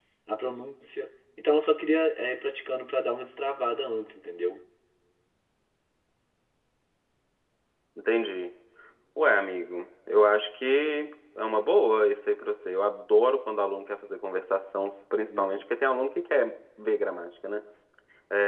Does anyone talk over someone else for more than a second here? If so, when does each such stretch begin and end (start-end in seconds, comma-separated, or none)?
none